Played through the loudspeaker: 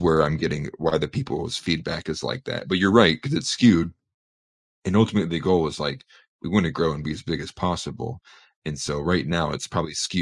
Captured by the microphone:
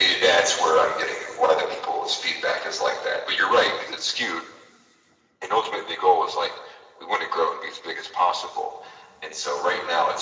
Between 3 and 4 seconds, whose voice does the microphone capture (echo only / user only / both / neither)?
echo only